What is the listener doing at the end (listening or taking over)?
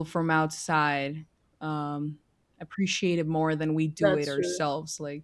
listening